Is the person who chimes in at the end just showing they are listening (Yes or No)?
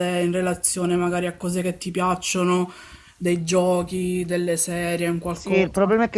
No